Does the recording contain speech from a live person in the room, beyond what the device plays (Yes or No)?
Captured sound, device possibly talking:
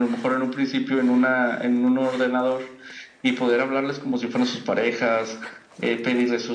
No